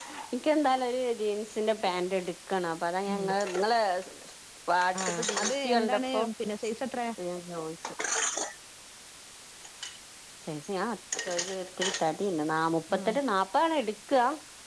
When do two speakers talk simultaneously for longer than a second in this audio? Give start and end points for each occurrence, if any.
5.0-6.2

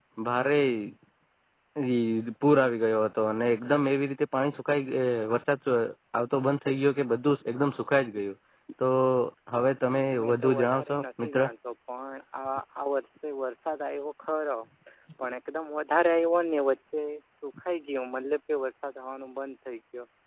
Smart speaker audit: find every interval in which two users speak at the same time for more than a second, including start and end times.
10.2-11.4

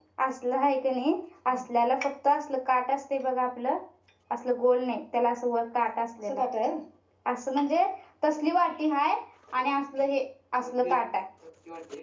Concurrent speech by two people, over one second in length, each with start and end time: none

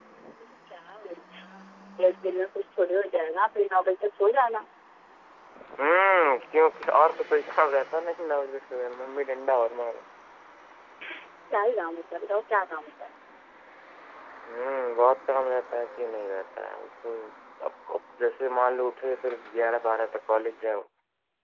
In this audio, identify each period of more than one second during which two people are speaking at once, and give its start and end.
none

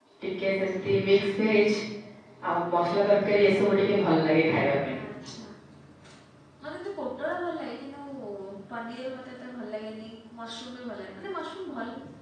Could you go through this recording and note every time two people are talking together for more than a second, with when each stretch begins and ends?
none

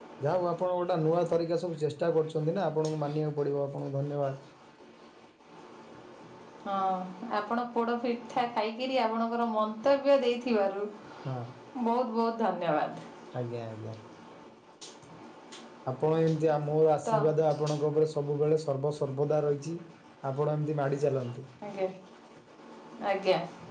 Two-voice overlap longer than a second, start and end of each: none

